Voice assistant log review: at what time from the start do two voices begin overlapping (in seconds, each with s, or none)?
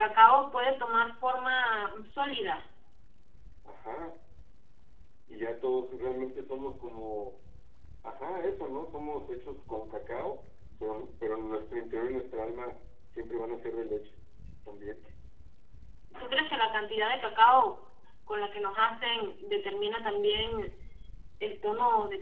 none